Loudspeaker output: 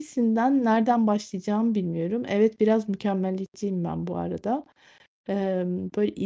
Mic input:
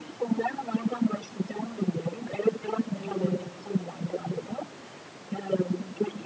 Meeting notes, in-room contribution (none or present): present